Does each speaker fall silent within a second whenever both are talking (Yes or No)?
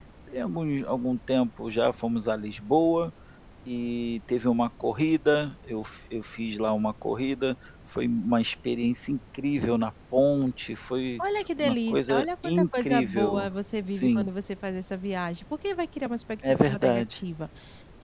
No